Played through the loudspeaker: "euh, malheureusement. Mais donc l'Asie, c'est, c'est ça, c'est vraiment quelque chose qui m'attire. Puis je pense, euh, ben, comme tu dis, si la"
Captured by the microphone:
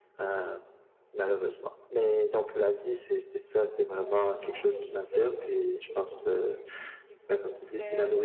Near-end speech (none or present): present